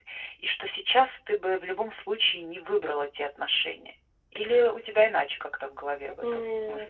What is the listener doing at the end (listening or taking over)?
taking over